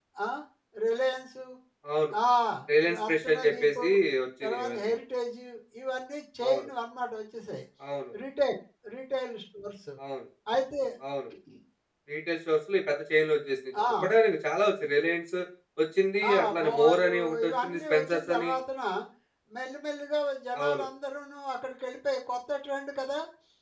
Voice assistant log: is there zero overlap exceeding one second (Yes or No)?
No